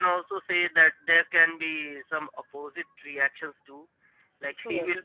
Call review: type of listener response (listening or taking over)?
listening